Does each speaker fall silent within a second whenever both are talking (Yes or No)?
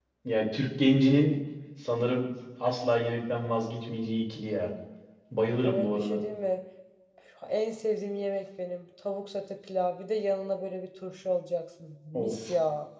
Yes